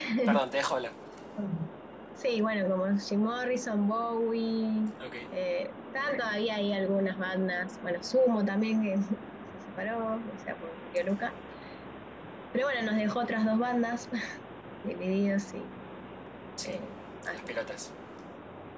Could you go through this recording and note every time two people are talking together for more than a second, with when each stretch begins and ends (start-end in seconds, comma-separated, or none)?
none